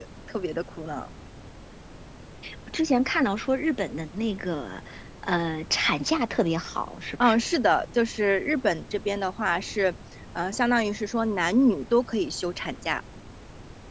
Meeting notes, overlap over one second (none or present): none